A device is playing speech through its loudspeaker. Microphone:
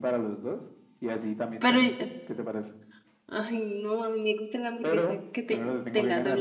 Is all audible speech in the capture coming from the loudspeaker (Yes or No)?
No